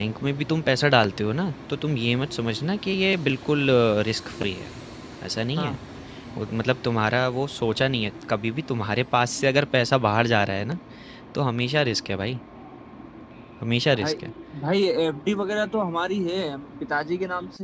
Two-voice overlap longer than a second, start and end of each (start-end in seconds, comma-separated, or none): none